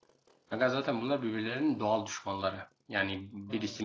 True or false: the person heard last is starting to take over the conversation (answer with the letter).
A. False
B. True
A